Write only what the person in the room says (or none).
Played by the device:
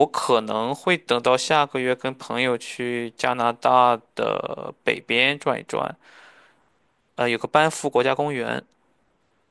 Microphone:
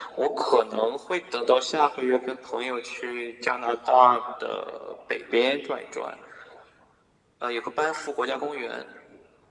none